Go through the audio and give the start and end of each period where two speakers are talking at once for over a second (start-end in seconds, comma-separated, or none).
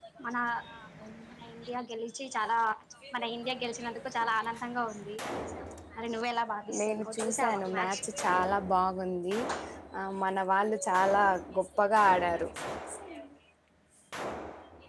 6.8-8.0